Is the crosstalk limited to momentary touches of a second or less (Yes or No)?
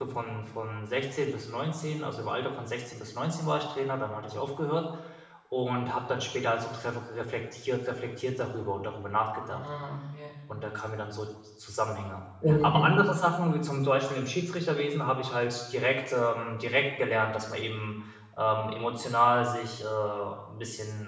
Yes